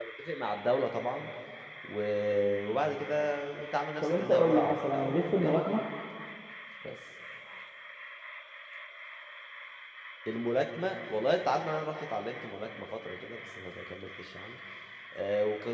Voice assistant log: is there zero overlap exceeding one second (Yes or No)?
No